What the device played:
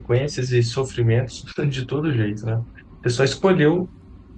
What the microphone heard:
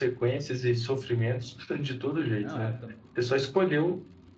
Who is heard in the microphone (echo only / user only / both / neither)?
both